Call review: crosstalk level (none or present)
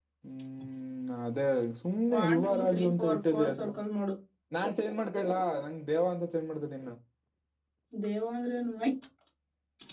present